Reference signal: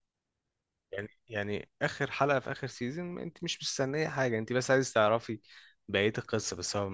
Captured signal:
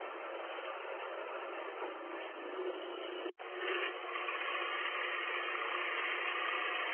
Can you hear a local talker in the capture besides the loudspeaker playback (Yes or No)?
No